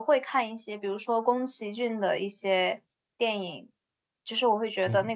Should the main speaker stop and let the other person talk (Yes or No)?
No